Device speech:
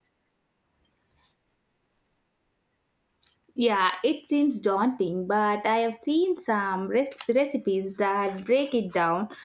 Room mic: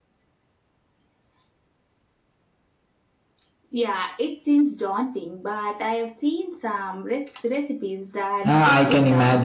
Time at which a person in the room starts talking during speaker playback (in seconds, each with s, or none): 8.5 s